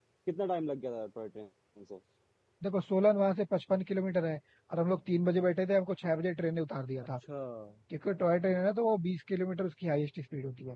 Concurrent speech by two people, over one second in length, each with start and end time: none

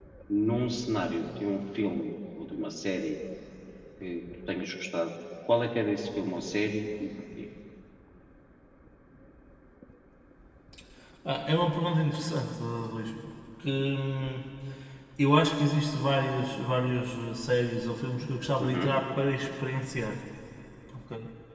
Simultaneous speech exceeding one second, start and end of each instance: none

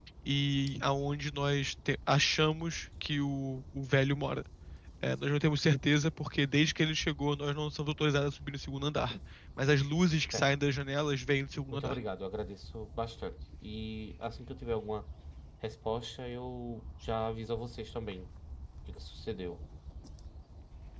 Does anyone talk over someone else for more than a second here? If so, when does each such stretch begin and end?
none

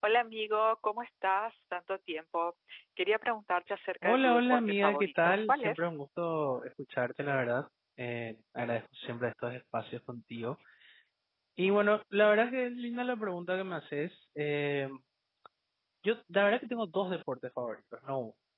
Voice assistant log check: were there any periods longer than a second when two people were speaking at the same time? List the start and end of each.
4.0-5.9

